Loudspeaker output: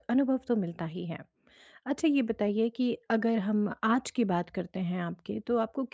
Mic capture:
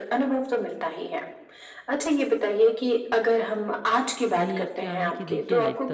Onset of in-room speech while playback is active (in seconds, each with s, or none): 4.4 s